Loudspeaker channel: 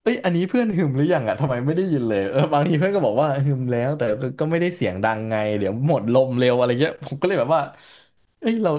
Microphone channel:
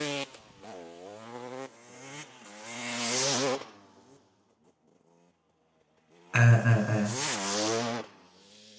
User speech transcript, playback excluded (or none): อ่าอ่าอ่า